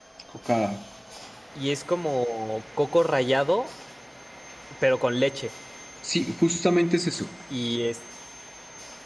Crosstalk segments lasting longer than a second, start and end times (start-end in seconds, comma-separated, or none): none